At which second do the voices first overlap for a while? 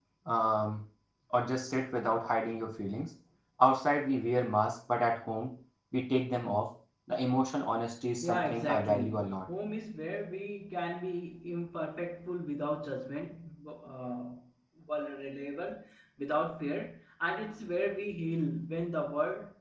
8.2 s

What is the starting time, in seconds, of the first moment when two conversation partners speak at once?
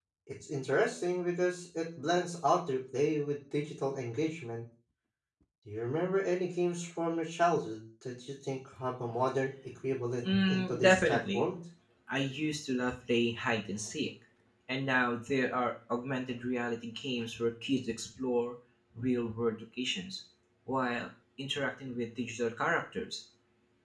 10.2 s

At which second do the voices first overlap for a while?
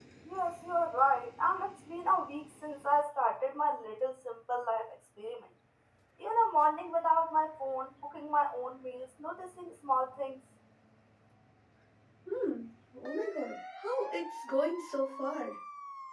none

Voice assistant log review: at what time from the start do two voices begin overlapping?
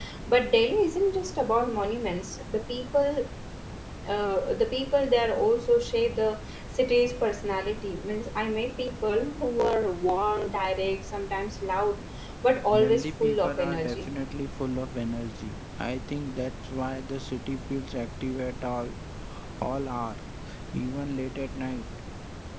12.8 s

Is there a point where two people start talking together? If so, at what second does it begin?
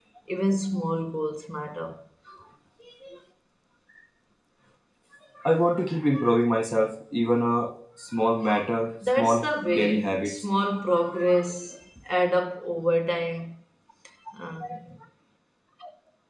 9.0 s

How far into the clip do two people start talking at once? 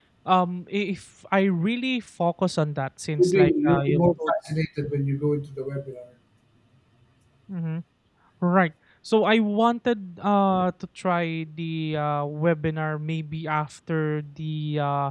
3.2 s

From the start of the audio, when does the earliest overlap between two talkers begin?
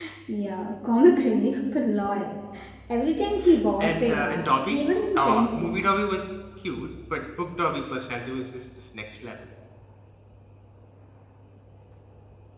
3.8 s

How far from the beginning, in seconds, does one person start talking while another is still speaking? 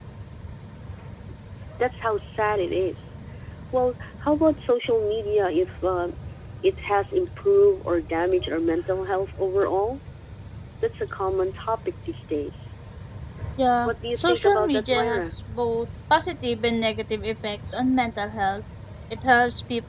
13.8 s

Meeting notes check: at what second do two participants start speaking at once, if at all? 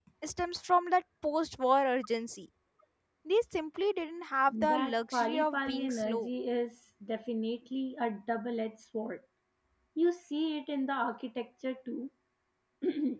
4.5 s

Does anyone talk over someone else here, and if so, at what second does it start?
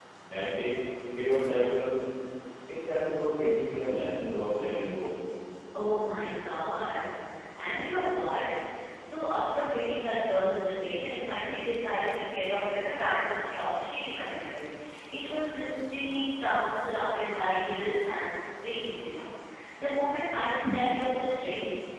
none

